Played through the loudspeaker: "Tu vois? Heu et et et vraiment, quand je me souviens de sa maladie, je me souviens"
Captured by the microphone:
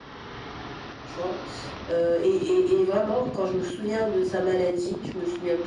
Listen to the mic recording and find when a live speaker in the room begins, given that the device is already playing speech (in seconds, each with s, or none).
none